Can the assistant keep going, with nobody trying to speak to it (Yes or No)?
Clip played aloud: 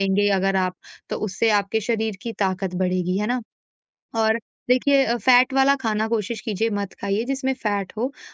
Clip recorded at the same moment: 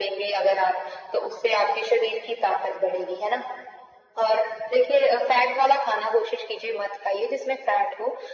Yes